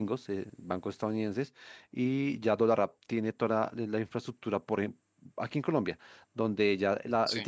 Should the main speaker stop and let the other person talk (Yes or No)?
No